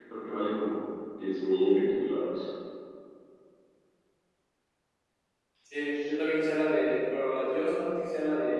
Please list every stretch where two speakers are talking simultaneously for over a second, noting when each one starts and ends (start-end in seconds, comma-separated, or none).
none